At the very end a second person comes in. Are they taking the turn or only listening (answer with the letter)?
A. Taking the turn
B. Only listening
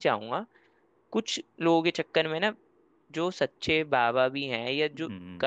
B